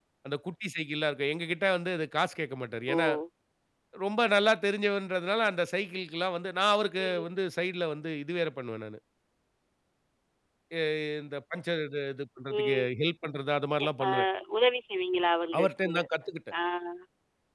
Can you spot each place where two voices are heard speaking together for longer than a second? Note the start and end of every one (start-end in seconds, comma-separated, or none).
none